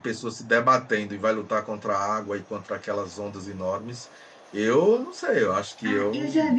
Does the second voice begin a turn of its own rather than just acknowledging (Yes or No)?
Yes